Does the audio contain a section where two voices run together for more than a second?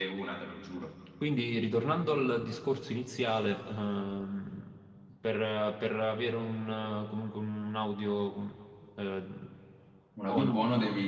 No

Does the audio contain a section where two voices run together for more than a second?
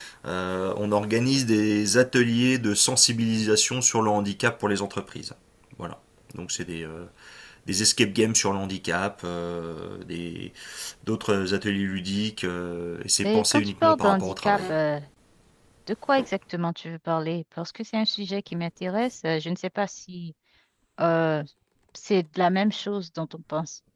Yes, from 13.2 s

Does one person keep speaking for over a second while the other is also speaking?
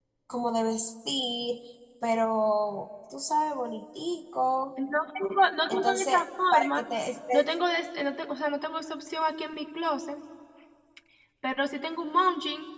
No

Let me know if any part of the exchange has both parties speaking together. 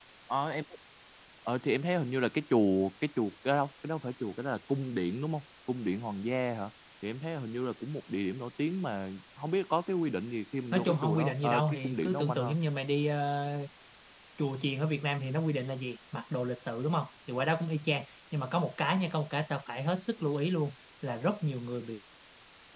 Yes, from 10.7 s

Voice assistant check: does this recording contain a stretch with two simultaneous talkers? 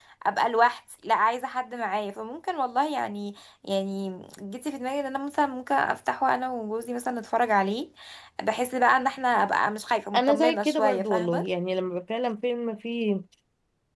Yes, from 10.1 s

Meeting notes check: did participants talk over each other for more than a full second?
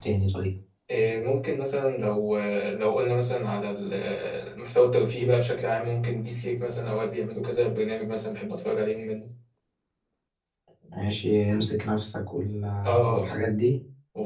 No

